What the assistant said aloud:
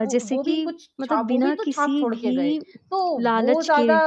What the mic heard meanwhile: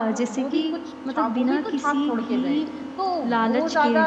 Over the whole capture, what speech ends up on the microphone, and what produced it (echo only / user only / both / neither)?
echo only